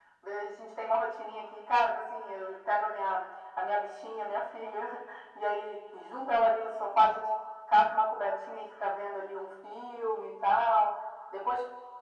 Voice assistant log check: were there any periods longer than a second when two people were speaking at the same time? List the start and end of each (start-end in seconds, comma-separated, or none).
none